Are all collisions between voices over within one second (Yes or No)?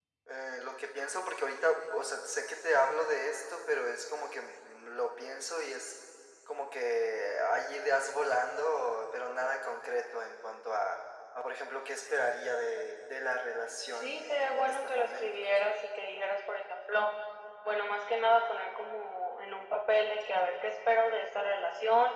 No